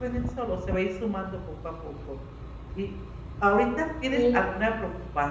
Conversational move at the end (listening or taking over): listening